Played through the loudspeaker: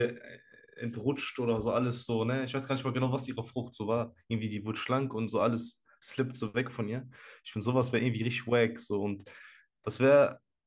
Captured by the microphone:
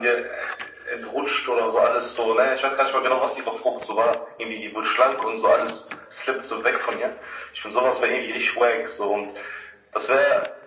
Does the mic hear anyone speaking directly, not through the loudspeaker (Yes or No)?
No